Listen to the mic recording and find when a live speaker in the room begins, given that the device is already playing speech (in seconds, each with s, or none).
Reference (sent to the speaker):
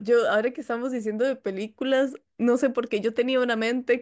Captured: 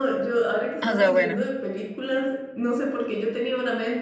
0.8 s